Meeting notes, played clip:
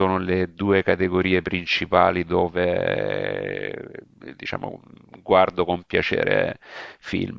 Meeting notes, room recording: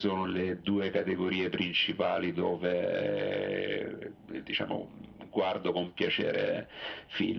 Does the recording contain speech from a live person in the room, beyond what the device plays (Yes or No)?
No